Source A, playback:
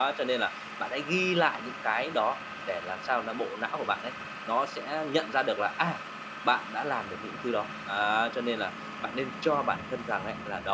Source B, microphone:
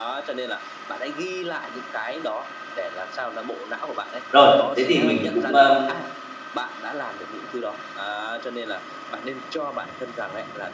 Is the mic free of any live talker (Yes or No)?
No